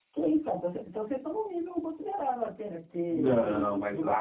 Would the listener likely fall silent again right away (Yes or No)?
No